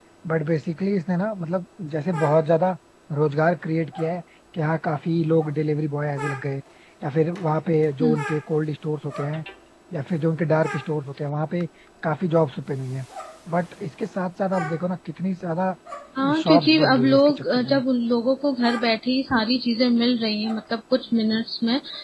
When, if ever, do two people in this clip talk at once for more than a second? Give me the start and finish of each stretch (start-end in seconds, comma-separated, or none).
16.4-17.8